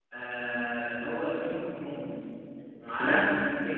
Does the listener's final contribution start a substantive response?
No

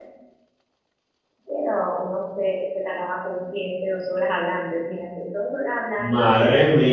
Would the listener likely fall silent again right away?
No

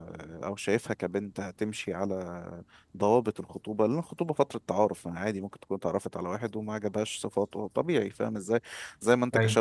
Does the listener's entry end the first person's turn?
No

